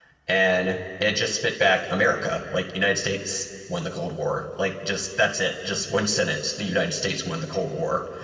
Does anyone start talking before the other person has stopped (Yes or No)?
No